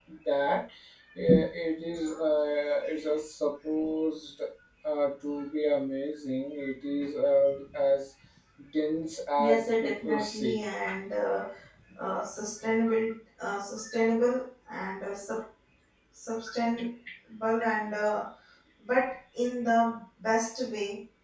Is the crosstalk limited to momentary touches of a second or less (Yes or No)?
No